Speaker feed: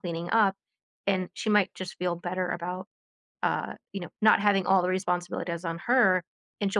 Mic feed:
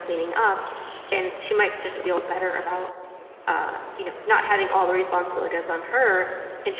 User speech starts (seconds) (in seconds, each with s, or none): none